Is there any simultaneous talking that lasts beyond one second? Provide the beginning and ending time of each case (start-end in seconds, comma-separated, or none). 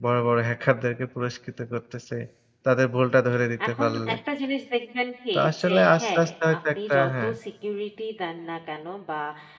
5.4-7.3